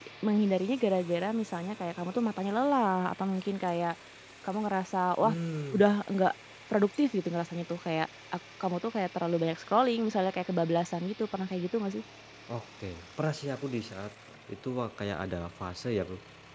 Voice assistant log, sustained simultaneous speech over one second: none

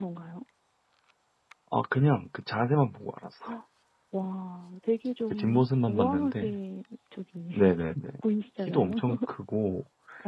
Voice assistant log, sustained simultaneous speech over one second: present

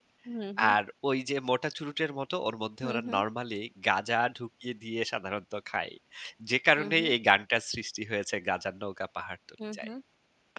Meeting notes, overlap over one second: none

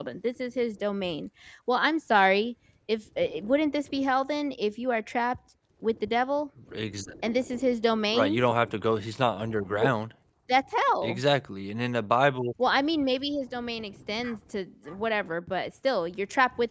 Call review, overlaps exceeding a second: none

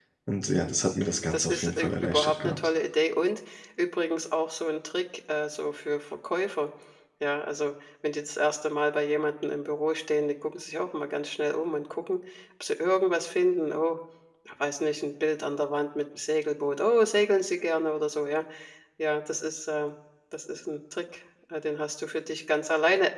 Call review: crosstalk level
present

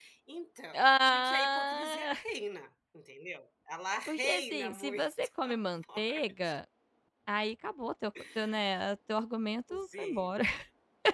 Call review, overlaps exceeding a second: present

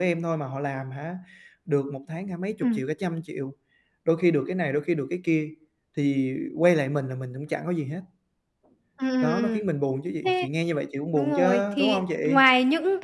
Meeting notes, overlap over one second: present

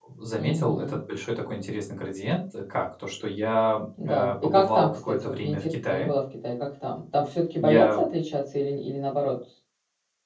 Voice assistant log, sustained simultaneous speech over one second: present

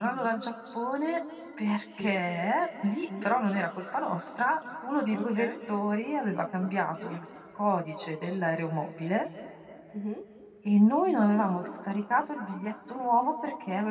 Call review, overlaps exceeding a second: none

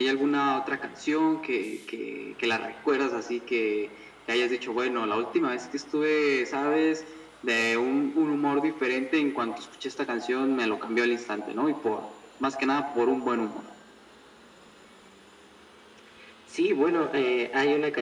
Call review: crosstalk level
none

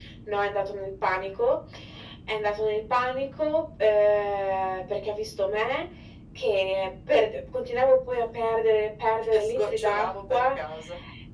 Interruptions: present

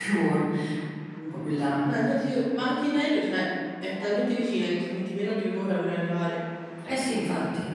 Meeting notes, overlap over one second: none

